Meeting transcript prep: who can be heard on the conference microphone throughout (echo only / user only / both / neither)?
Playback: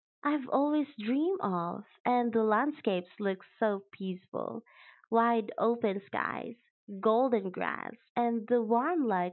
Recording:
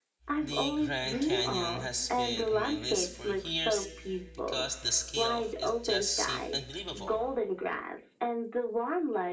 both